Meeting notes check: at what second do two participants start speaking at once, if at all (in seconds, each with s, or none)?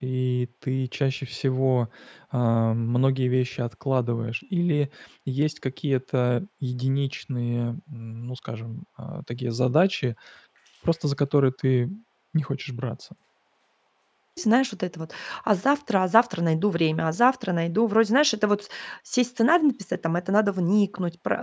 none